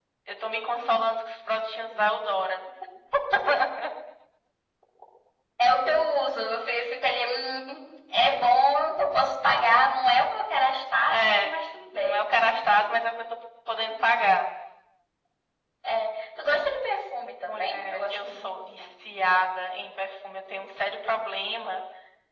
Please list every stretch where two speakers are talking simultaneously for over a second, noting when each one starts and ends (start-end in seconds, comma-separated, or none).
17.5-18.8